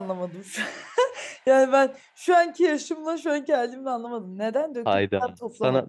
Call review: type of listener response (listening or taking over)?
taking over